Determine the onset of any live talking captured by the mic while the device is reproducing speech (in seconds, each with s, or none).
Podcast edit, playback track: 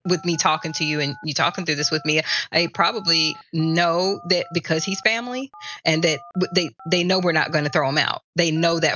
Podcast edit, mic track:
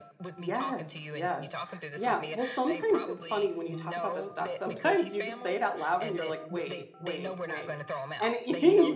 0.4 s